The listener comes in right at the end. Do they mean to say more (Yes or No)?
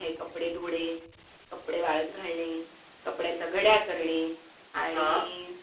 No